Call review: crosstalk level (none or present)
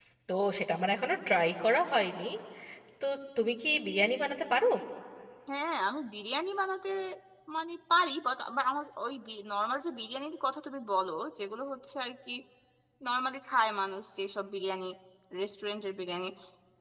none